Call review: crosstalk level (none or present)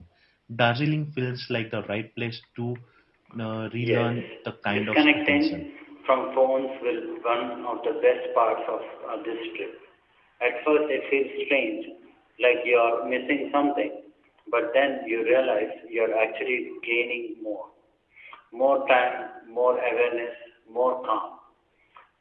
present